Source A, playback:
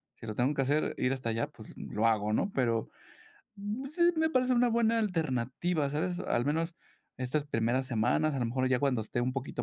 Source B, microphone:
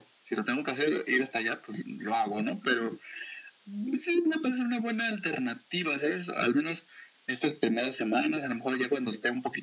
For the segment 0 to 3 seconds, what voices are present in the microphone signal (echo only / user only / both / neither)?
echo only